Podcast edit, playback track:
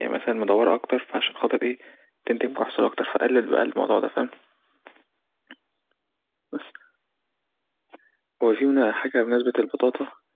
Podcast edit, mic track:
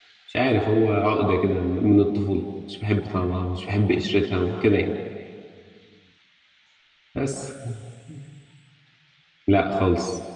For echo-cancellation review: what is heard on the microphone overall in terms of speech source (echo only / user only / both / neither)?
user only